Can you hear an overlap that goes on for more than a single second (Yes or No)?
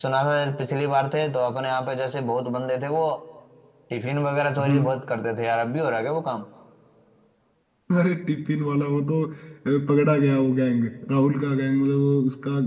No